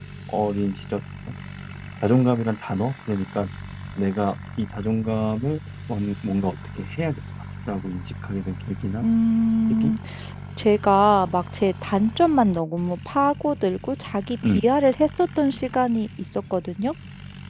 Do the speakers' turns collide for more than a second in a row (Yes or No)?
No